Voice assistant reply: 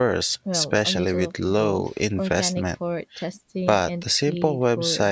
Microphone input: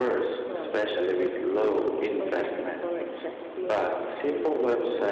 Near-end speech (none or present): none